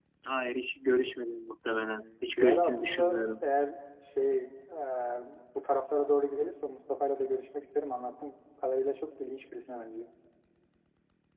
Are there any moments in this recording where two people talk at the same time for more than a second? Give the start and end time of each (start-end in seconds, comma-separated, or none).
1.6-3.4